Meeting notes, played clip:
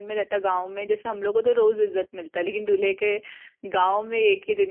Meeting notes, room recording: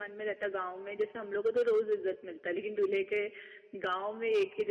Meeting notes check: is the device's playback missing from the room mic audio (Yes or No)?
No